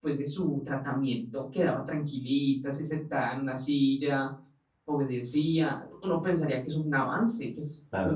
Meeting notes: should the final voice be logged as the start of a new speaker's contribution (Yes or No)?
Yes